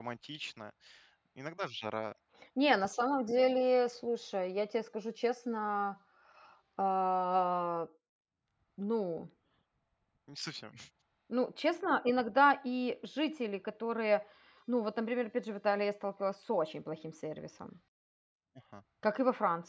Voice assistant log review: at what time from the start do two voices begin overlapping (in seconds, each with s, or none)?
none